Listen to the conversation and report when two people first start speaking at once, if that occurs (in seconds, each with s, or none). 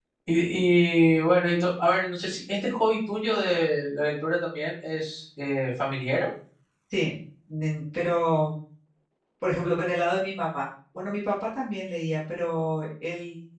none